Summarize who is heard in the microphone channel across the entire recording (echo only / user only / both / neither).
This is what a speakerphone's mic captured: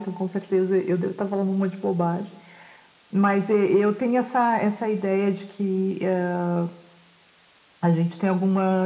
echo only